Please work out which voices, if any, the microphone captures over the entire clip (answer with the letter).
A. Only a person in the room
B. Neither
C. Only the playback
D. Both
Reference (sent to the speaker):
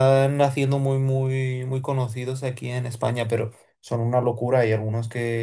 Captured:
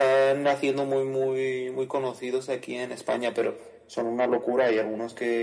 C